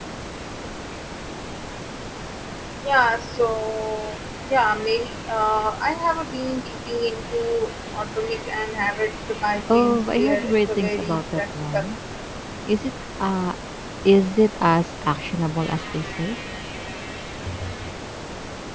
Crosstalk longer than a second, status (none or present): present